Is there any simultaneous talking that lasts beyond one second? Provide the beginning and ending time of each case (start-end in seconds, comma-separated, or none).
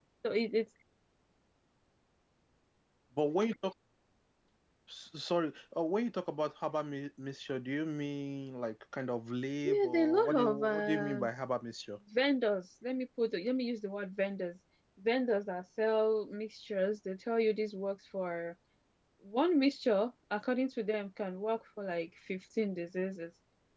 9.6-11.3